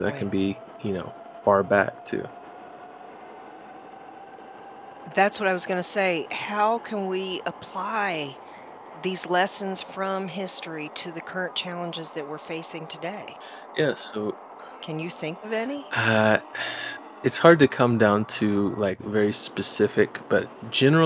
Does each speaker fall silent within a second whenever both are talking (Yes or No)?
Yes